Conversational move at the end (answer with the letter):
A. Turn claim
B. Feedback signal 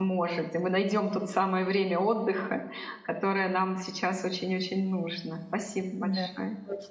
A